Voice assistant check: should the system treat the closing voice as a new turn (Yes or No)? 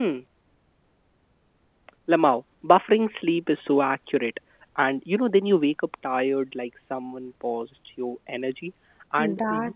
No